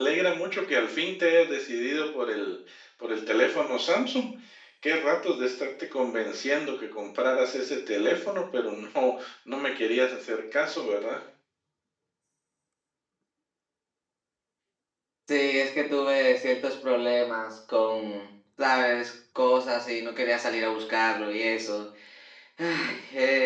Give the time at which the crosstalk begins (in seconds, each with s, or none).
none